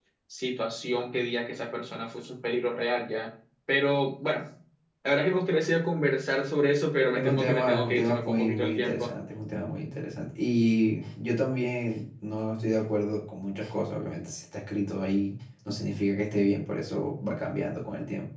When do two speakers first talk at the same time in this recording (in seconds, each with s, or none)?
7.1 s